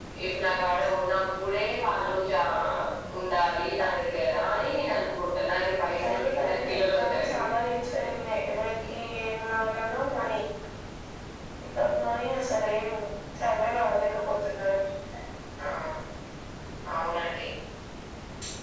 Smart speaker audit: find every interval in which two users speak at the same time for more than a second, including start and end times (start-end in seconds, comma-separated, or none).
6.0-7.4